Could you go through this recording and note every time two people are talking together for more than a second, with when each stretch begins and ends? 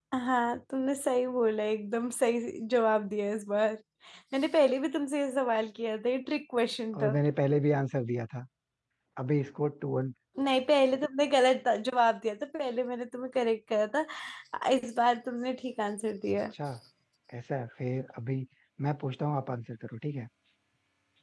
none

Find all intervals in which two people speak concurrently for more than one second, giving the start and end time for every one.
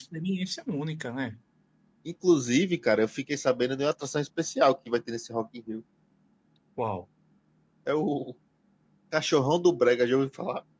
none

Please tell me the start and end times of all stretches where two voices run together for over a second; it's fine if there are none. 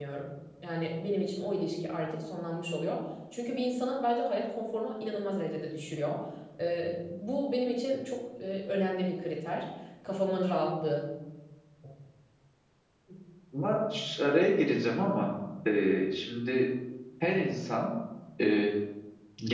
none

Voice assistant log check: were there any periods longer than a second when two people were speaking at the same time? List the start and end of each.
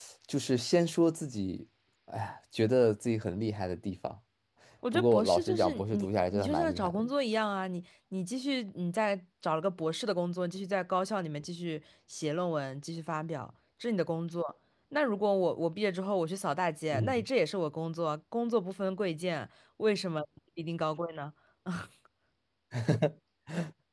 4.9-7.0

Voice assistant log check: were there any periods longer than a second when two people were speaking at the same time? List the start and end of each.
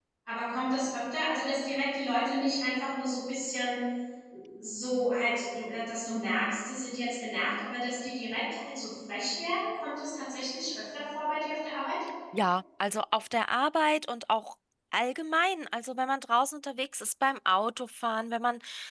none

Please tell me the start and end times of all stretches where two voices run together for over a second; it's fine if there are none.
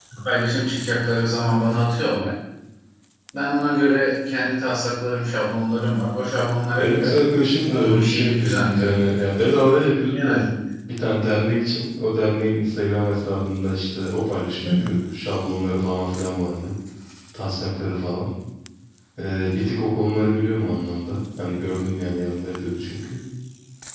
7.7-9.0

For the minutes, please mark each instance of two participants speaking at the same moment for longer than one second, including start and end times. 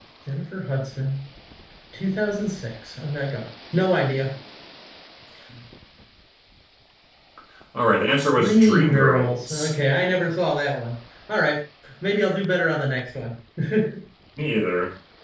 8.3-9.7

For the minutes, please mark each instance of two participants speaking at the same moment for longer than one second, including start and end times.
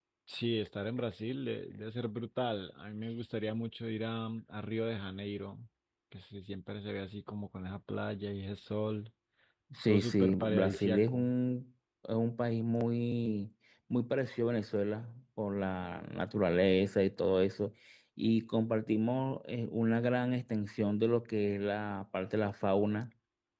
9.9-11.3

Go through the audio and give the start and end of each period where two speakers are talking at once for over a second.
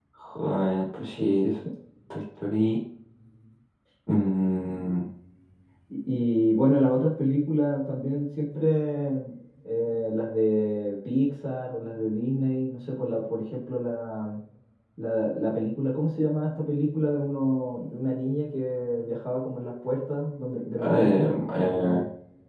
20.8-22.0

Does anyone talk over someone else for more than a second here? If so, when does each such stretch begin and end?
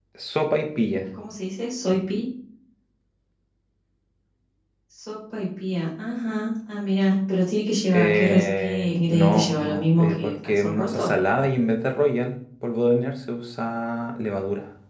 7.9-11.1

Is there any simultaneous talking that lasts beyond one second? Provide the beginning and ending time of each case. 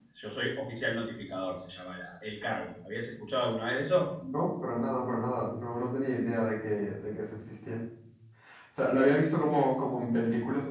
none

